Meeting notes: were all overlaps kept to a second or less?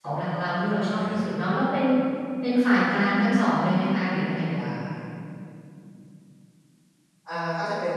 Yes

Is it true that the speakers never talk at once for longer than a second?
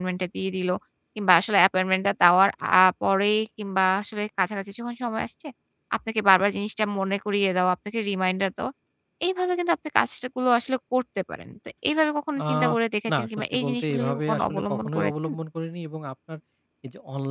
No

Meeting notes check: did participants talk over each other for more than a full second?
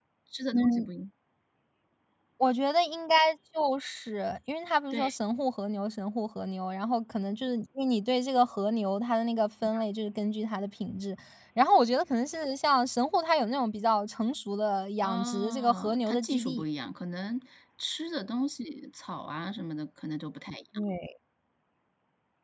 Yes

